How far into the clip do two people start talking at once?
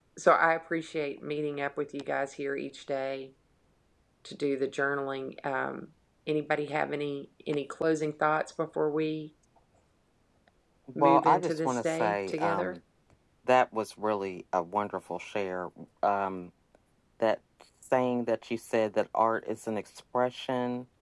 11 s

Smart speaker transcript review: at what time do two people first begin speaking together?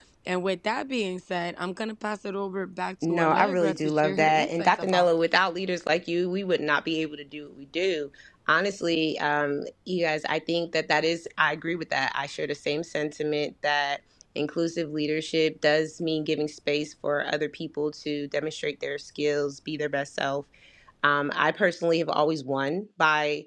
3 s

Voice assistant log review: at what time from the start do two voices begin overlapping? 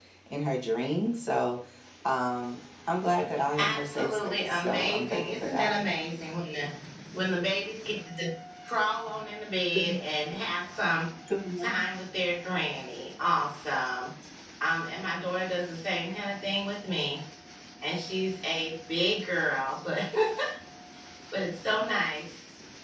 4 s

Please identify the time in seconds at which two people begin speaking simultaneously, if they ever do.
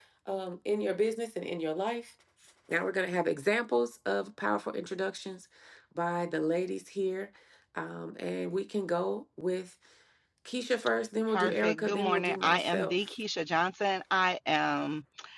11 s

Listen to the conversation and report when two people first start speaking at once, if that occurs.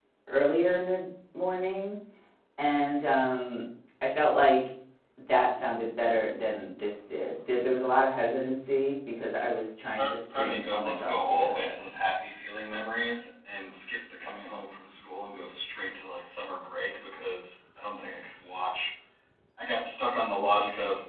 10 s

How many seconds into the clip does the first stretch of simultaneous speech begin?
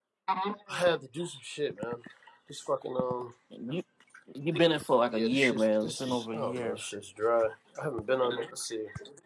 5 s

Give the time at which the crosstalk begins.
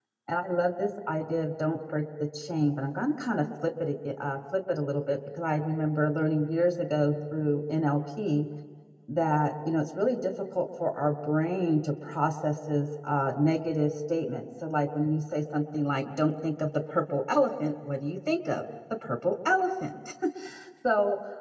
none

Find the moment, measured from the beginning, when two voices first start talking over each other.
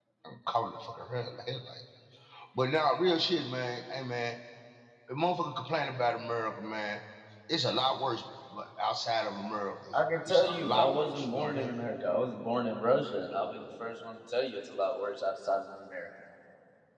10 s

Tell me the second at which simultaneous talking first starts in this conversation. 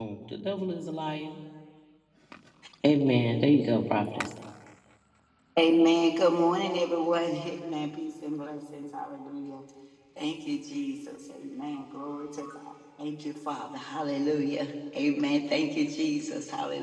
none

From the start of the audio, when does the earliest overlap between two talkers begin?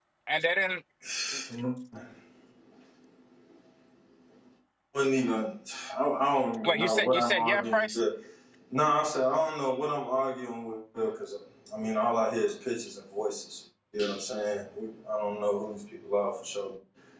7 s

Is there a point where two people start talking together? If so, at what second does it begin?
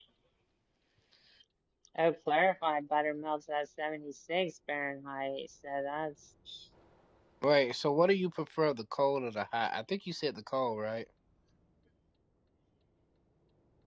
none

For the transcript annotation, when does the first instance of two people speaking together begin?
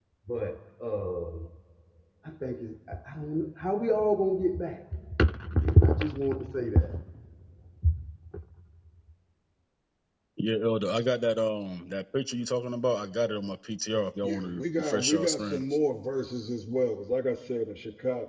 14 s

